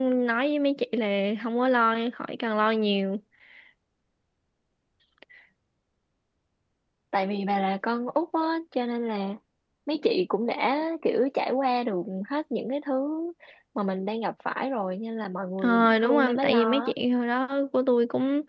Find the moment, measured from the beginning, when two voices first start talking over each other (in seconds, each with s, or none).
15.6 s